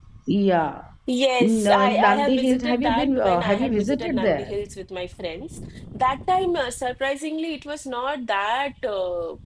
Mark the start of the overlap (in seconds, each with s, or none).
1.4 s